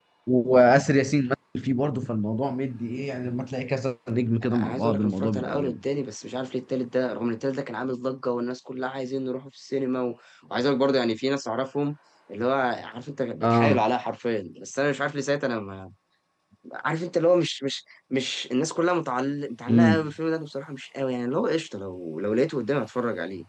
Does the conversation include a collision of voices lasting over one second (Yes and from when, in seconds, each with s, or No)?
Yes, from 4.4 s